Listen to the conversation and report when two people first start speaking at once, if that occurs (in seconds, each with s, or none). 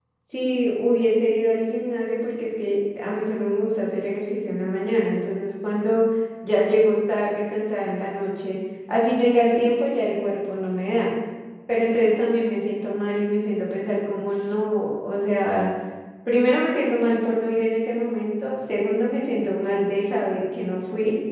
none